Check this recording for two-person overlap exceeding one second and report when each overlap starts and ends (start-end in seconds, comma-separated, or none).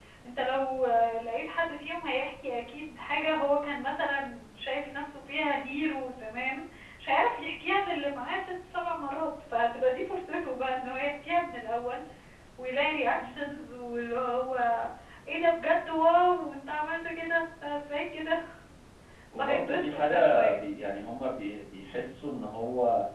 19.4-20.6